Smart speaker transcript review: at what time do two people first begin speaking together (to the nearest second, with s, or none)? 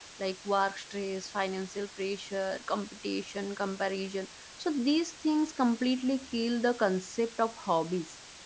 none